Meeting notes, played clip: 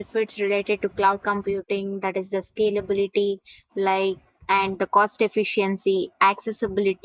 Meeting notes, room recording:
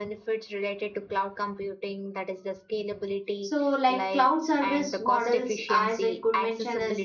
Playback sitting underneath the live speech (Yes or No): Yes